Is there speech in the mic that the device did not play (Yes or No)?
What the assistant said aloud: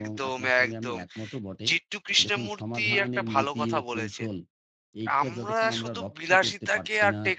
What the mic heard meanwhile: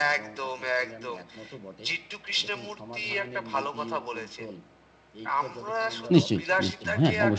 Yes